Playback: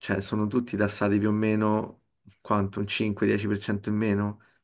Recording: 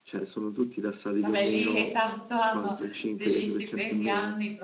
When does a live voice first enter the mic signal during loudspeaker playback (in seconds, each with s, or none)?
1.2 s